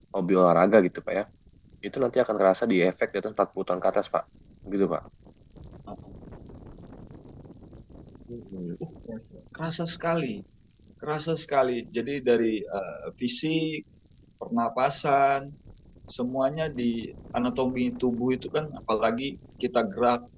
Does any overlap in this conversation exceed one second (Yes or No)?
No